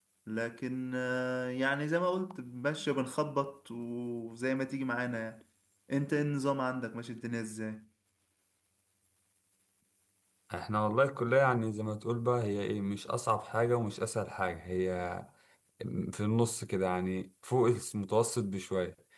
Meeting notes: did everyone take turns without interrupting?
Yes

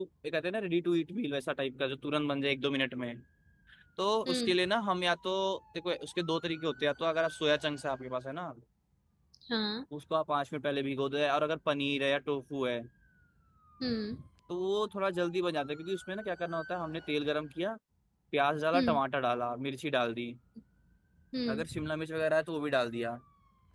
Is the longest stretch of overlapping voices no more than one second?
Yes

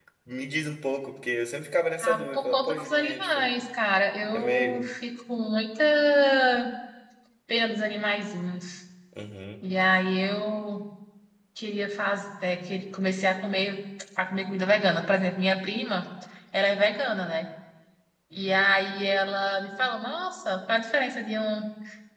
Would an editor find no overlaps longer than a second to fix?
No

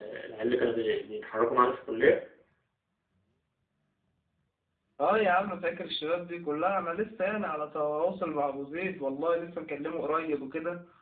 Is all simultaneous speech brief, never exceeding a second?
Yes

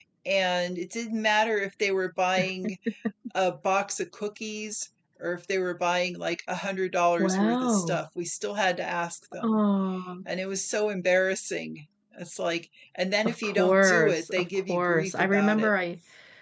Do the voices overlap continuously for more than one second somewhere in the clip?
Yes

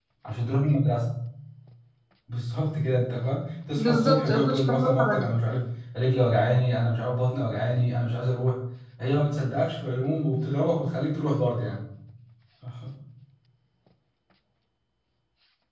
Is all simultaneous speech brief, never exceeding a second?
No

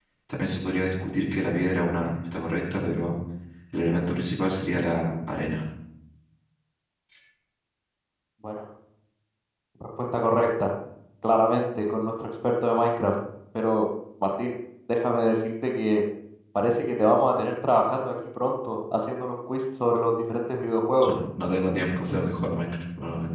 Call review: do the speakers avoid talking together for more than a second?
Yes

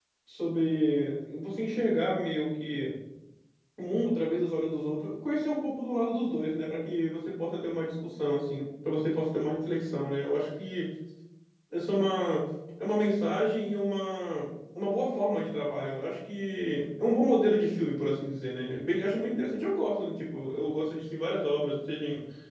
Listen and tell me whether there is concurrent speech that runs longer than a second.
No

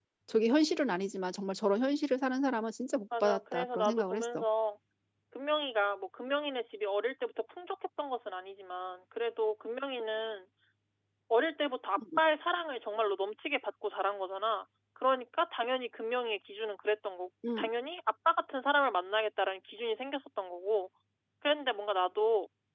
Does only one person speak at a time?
No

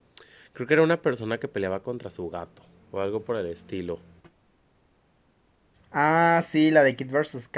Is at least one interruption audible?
No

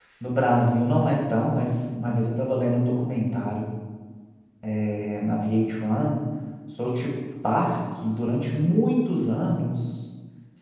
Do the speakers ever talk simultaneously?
No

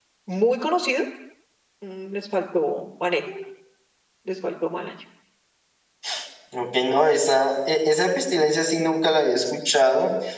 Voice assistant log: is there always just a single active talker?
Yes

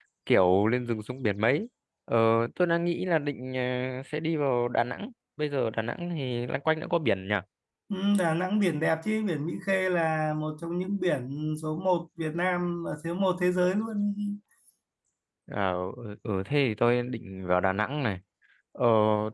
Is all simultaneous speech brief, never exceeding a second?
Yes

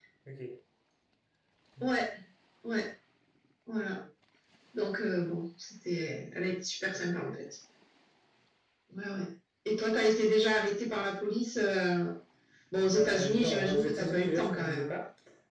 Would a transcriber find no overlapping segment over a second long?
No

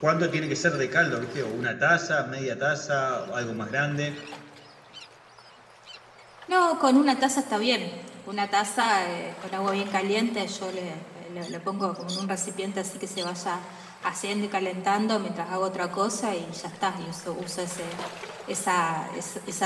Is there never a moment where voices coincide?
Yes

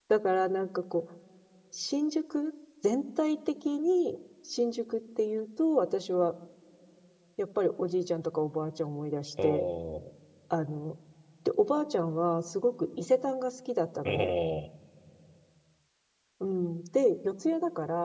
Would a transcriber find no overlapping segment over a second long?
Yes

